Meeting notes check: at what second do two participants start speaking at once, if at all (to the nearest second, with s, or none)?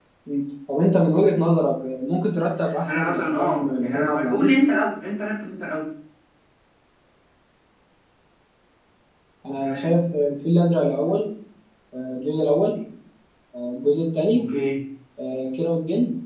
3 s